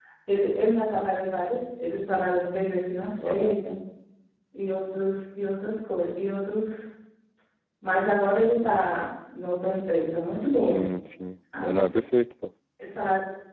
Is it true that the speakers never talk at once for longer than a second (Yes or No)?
Yes